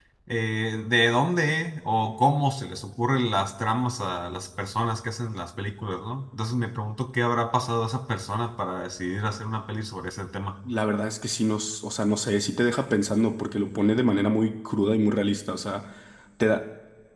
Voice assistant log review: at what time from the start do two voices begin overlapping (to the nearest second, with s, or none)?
none